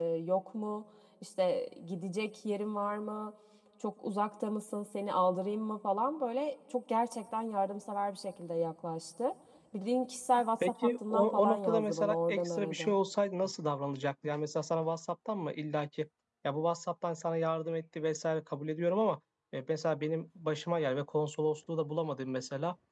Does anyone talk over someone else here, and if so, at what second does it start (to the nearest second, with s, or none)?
11 s